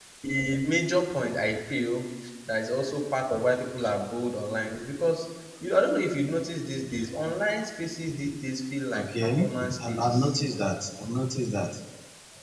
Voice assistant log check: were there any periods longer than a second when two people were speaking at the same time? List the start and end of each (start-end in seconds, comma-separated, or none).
8.9-10.4